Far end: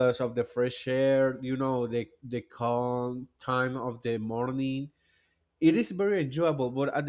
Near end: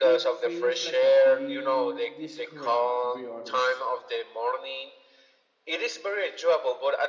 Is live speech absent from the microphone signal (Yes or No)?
No